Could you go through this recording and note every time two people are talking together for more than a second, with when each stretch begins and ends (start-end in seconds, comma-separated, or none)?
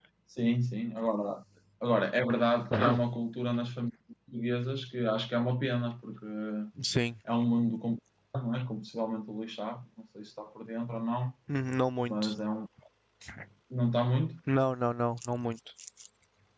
none